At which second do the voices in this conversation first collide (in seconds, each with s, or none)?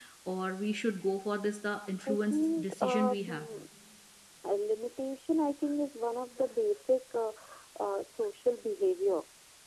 2.1 s